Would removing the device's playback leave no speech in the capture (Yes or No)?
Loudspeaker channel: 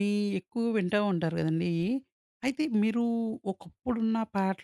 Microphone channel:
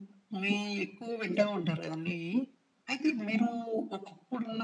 Yes